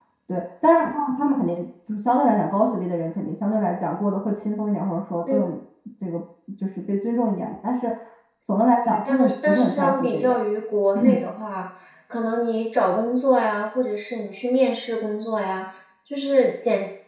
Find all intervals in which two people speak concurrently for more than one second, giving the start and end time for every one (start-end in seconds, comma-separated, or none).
8.8-10.4